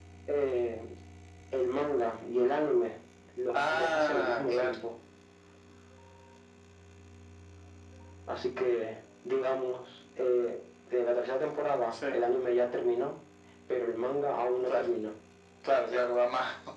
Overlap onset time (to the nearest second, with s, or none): 4 s